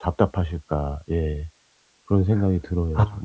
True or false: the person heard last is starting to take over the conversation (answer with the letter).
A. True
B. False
A